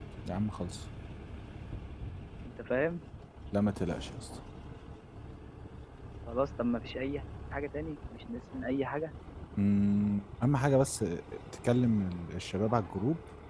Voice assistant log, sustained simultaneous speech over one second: none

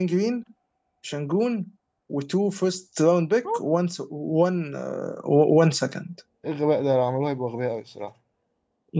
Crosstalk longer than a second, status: none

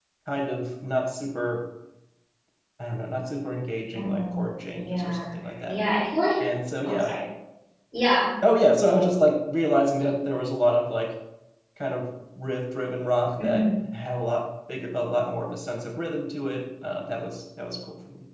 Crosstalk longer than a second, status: none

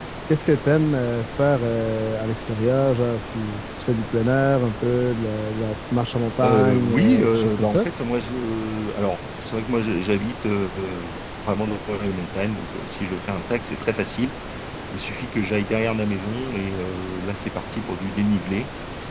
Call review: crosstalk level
present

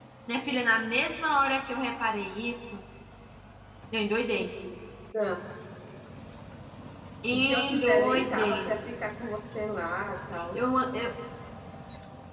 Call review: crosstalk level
present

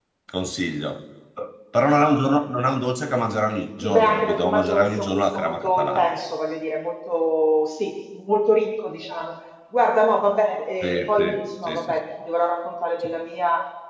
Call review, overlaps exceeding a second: present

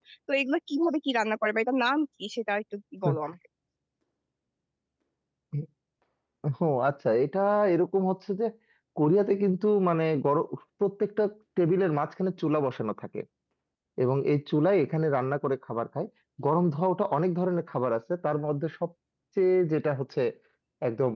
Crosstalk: none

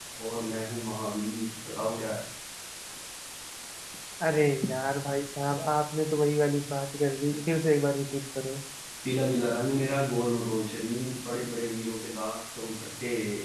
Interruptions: none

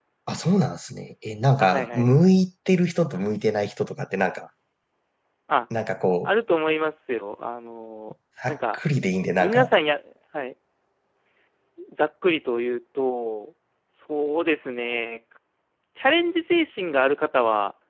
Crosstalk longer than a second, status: none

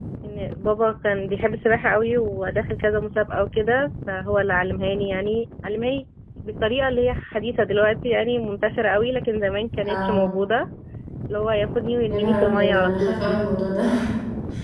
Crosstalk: present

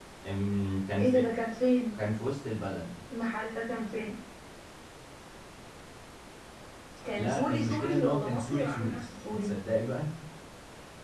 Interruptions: present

